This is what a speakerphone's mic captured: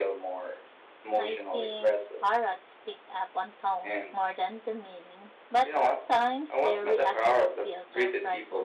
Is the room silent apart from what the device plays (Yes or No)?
No